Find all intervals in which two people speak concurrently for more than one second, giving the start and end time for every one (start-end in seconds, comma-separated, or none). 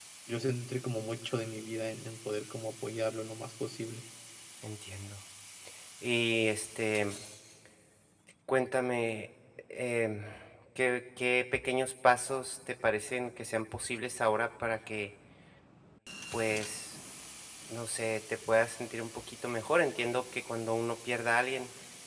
none